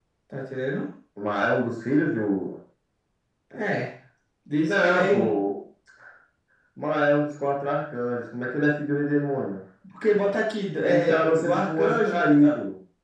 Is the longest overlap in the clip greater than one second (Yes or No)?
Yes